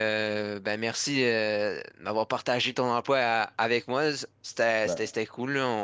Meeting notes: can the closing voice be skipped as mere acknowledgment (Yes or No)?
Yes